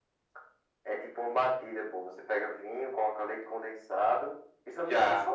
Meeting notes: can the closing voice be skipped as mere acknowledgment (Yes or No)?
No